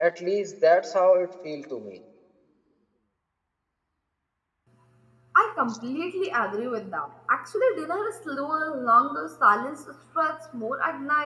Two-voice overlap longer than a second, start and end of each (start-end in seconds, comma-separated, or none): none